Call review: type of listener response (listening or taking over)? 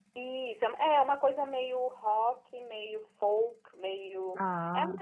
listening